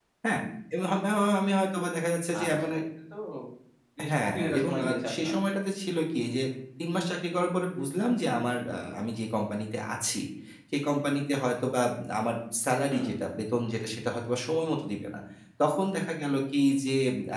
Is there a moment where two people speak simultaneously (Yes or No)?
Yes